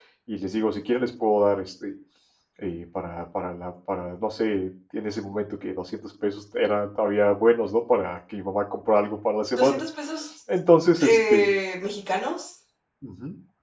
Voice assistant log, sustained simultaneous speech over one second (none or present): none